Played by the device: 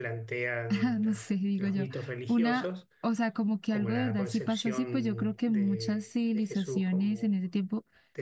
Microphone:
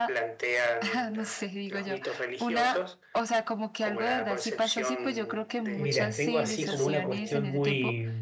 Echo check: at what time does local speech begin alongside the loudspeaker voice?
5.7 s

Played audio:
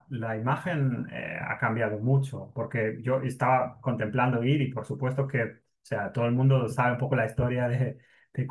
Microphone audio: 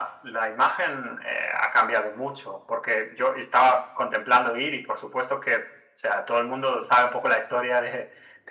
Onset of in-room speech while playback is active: none

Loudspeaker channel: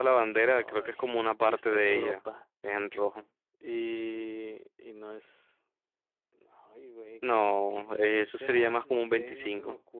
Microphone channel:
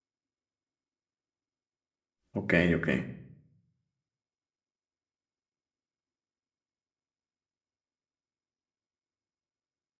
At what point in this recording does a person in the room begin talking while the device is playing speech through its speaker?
2.3 s

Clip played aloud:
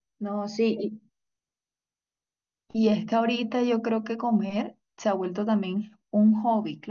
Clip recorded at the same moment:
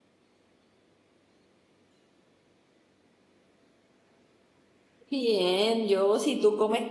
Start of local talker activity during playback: 5.1 s

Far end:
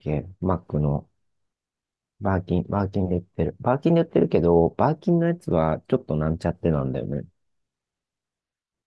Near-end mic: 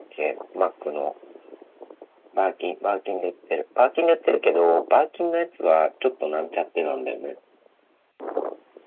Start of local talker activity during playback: none

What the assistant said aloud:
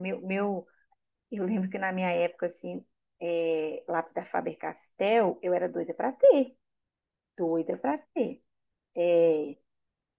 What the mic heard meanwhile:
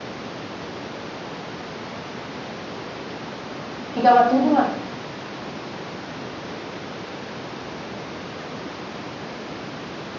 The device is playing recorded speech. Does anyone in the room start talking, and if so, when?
3.9 s

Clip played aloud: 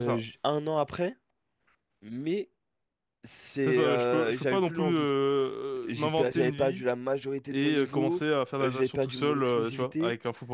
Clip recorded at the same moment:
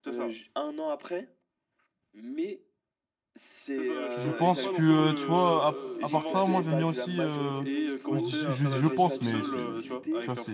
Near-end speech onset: 4.1 s

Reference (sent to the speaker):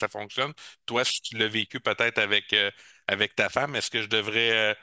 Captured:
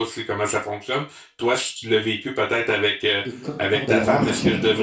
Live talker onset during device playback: 3.2 s

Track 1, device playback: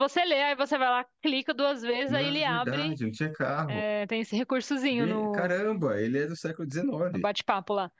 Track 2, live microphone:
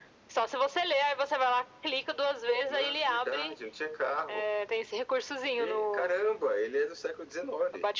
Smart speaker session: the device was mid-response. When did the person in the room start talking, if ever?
none

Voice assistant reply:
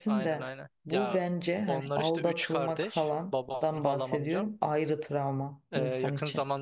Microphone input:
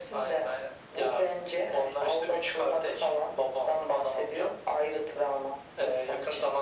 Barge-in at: none

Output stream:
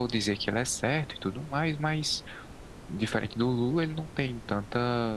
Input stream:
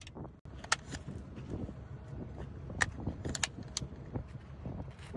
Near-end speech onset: none

